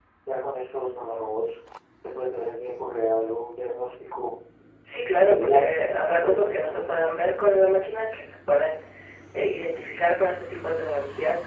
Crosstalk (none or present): present